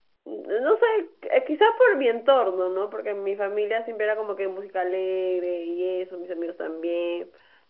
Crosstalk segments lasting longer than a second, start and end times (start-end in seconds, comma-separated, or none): none